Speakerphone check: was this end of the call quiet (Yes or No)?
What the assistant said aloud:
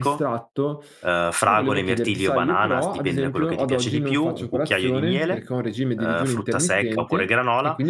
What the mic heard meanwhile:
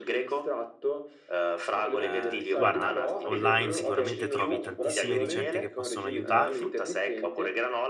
No